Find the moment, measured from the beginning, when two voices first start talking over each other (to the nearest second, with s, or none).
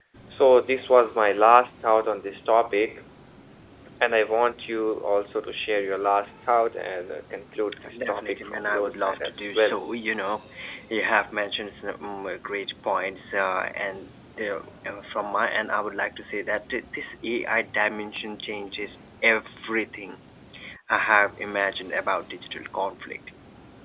8 s